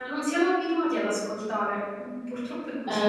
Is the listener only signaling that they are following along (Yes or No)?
No